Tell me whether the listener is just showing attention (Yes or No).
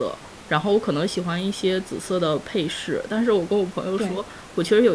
Yes